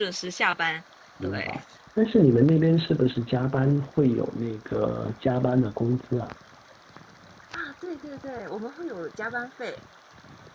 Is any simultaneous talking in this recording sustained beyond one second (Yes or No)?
No